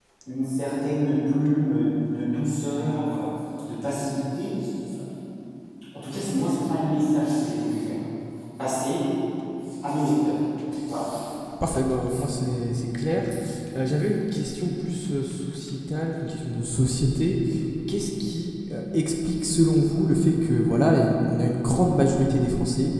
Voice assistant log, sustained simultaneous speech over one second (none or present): none